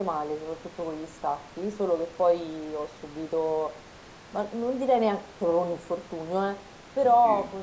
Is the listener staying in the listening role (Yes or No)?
Yes